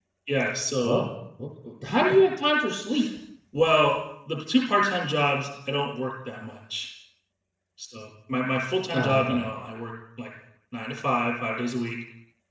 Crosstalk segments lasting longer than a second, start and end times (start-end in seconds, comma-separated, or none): none